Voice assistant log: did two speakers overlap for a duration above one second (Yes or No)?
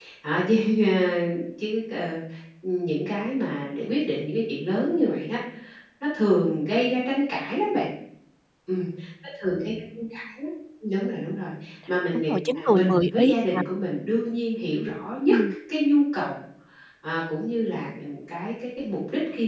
Yes